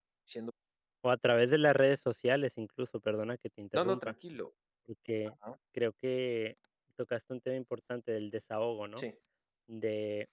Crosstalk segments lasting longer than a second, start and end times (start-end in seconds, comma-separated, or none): none